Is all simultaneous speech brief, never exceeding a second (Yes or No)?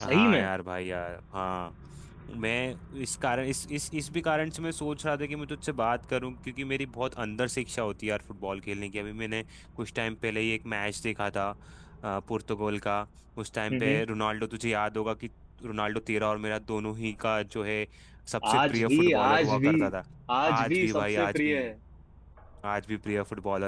No